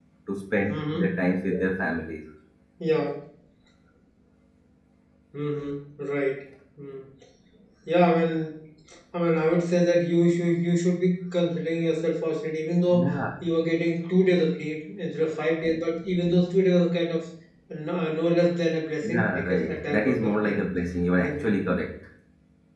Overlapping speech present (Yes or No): Yes